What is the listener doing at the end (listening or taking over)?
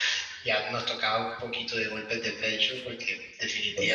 listening